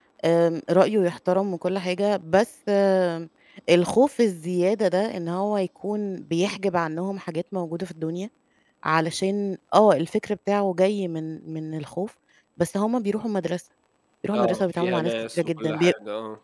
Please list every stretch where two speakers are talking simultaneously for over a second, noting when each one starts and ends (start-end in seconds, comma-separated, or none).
14.3-15.9